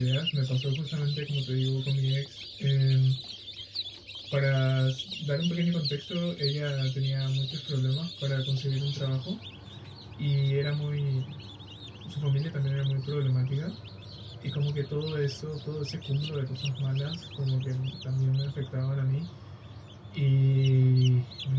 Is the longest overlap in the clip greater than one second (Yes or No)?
No